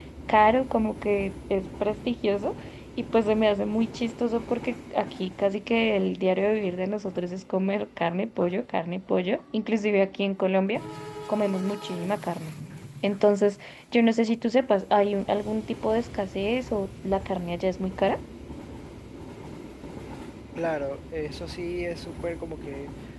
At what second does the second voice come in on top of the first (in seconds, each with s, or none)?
none